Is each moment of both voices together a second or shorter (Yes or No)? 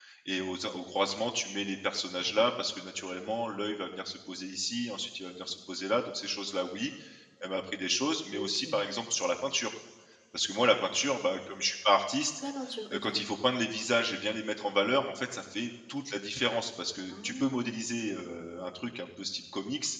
Yes